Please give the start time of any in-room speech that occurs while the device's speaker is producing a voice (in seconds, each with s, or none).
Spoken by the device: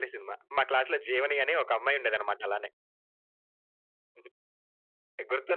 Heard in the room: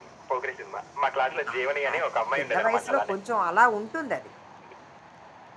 1.3 s